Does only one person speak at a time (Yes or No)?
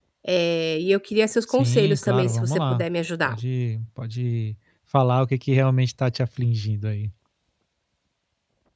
No